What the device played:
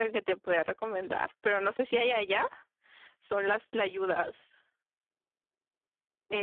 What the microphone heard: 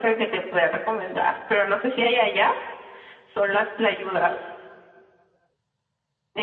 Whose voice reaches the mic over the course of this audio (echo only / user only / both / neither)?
echo only